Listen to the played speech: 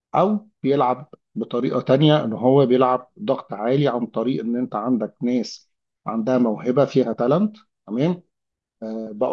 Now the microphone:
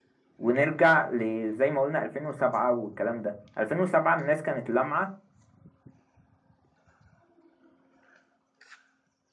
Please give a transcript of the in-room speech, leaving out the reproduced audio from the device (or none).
ونرجع لزي ما قلنا 2007 والكلام ده 2007 الناس كانت لامعة